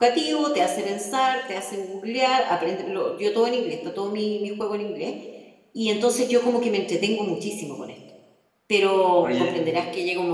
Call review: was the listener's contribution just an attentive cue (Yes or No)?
Yes